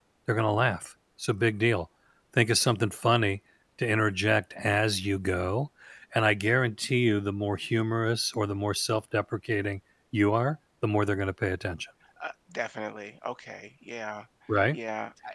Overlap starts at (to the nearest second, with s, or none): none